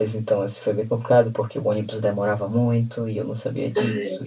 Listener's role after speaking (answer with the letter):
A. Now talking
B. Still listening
B